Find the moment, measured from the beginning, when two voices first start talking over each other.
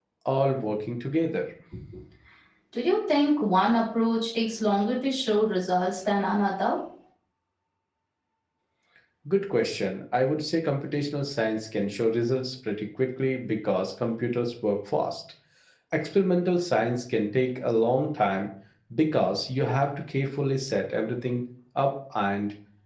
none

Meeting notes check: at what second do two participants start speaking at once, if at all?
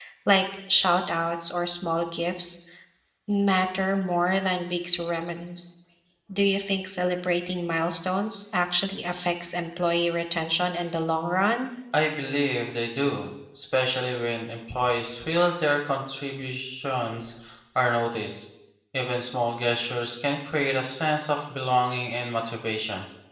none

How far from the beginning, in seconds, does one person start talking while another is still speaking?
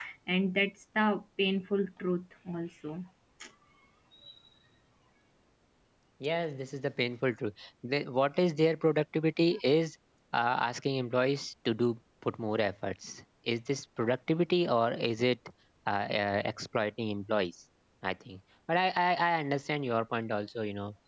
none

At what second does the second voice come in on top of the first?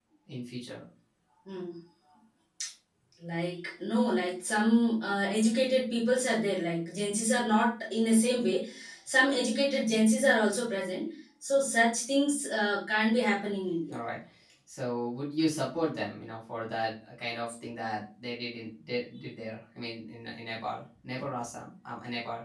none

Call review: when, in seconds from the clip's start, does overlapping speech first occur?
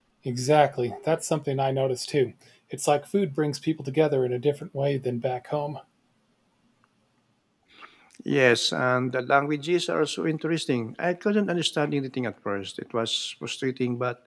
none

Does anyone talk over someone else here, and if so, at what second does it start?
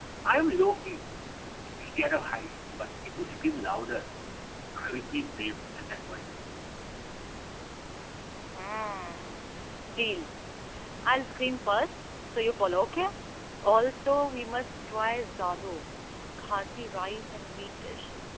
none

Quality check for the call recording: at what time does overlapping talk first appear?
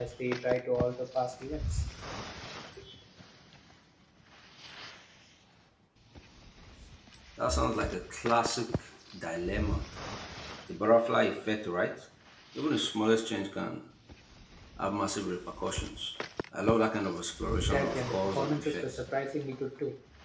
17.6 s

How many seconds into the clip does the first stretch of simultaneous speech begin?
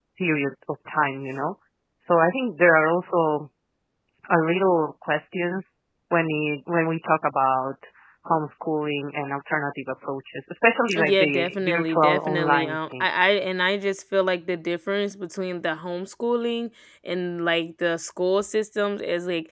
10.9 s

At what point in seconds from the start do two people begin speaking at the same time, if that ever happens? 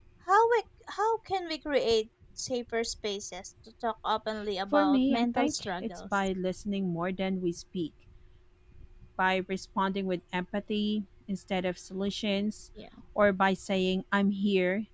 4.7 s

